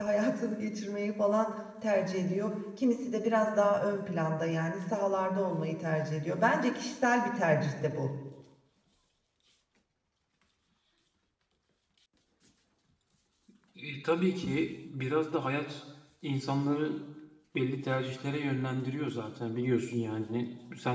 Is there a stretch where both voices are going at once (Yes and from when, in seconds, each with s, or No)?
No